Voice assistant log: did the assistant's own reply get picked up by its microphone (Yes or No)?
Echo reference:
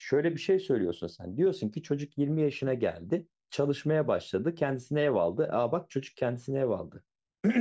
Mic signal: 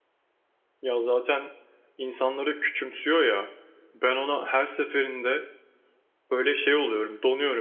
No